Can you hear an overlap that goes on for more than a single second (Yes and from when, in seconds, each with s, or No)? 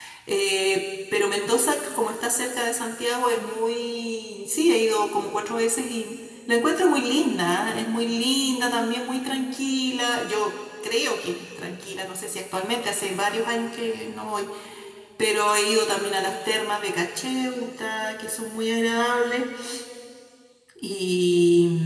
No